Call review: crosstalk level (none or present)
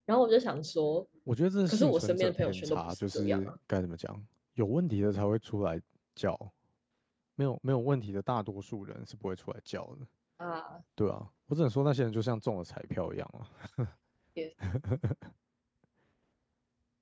present